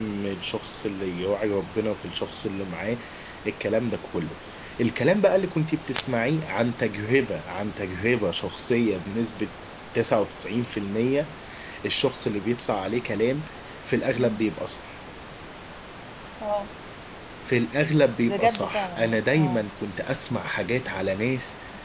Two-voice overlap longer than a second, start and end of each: 18.3-19.6

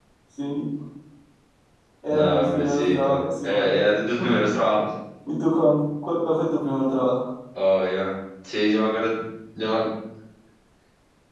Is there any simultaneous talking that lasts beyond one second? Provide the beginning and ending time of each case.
2.1-3.7

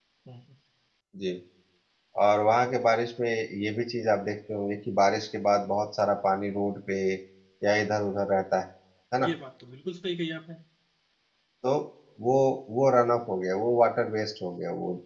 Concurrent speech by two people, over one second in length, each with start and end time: none

